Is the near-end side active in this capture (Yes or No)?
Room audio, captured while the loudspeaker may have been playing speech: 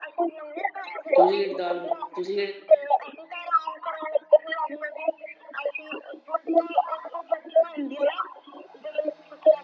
Yes